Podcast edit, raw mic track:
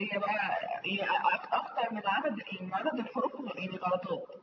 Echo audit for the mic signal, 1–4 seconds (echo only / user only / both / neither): echo only